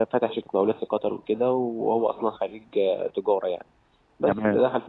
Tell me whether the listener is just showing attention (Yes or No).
Yes